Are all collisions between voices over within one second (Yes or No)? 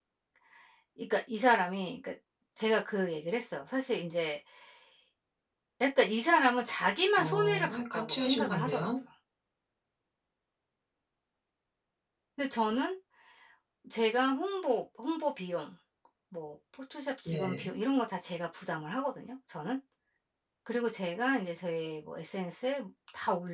No